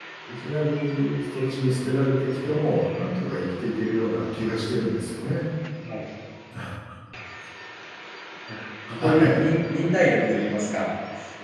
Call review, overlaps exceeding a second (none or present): none